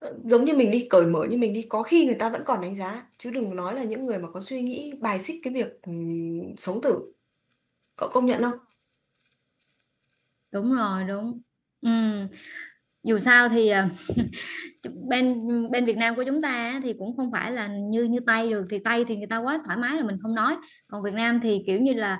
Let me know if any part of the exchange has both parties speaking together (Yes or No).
No